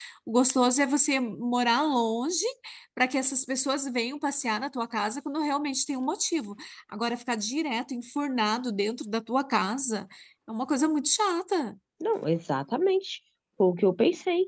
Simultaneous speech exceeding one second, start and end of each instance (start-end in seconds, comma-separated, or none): none